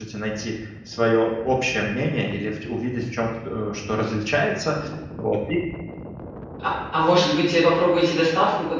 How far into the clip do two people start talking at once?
none

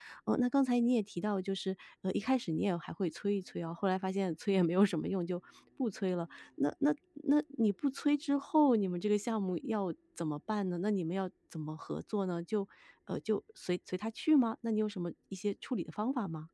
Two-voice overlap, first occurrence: none

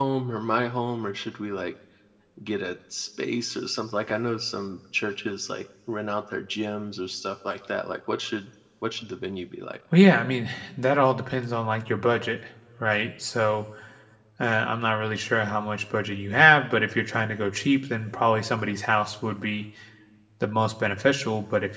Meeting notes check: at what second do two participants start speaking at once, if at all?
none

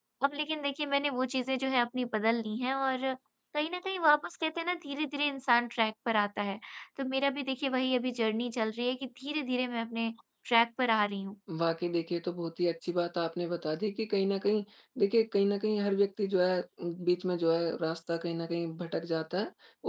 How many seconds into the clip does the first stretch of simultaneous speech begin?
none

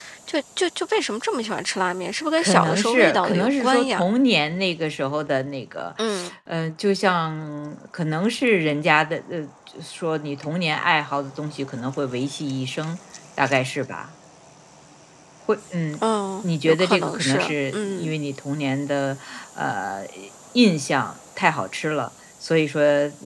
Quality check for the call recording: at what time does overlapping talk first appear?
2.4 s

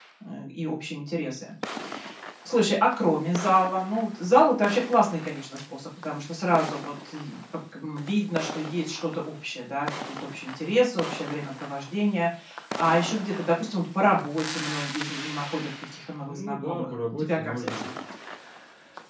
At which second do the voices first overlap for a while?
16.2 s

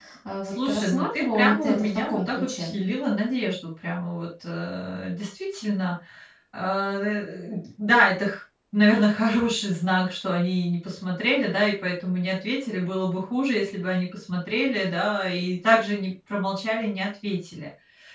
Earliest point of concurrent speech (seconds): 0.6 s

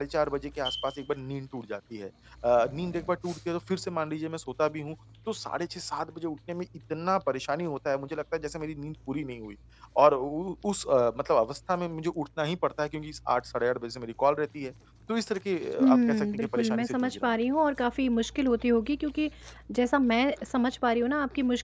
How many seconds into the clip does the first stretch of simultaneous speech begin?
15.8 s

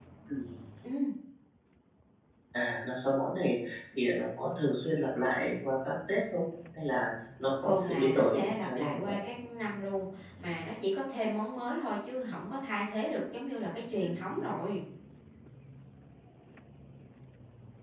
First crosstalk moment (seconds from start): 7.6 s

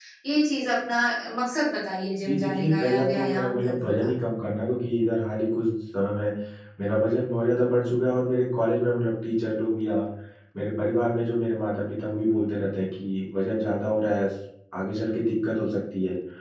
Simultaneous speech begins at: 2.2 s

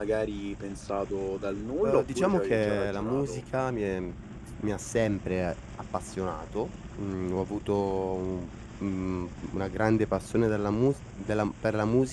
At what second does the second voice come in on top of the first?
1.8 s

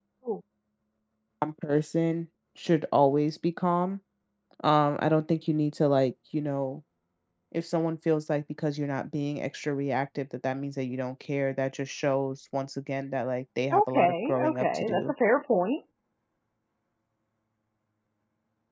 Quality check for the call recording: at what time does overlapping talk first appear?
13.7 s

